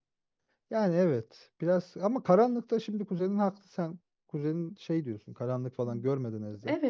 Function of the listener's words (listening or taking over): taking over